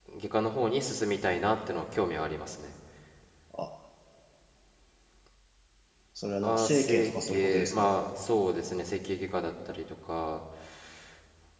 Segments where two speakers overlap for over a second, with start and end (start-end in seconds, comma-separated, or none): 6.4-7.9